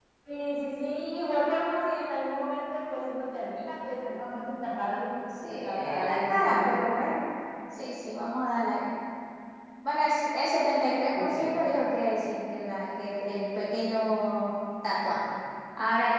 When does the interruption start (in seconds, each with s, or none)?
5.4 s